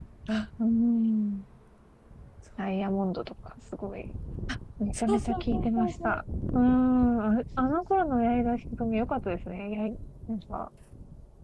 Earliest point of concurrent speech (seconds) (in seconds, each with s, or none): 5.0 s